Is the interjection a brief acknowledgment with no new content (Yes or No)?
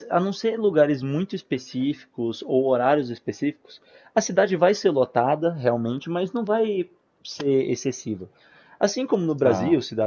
Yes